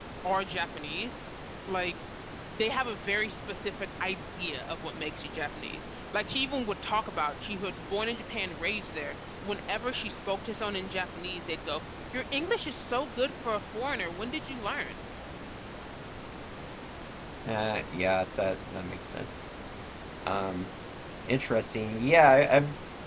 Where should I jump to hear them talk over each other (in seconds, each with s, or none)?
none